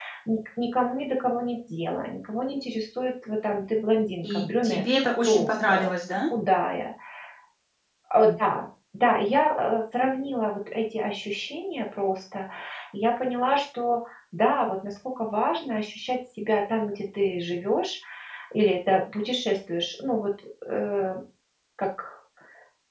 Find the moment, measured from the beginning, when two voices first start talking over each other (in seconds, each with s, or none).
4.2 s